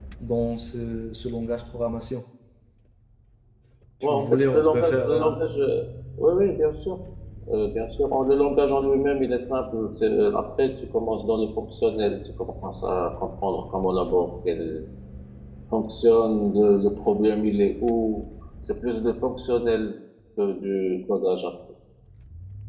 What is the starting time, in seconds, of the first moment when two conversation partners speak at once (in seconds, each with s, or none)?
4.0 s